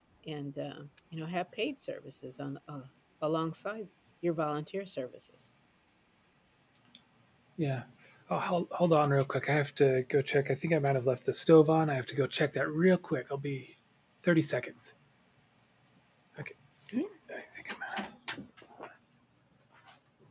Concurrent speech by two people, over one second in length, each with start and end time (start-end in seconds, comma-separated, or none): none